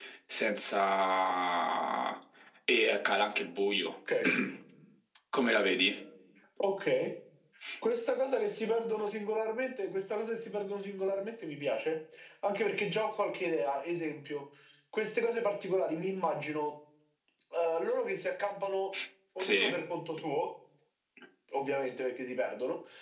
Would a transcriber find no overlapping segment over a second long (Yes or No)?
Yes